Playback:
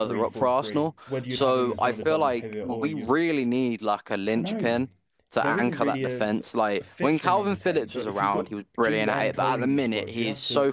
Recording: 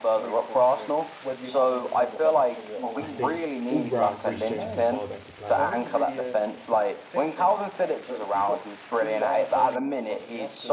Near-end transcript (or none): I think all round Reece James is a far better player.